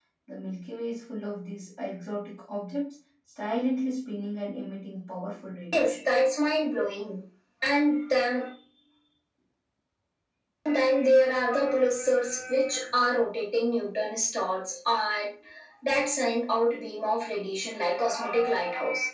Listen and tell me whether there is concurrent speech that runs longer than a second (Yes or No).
No